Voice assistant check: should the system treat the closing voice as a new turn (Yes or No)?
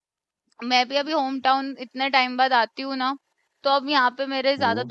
No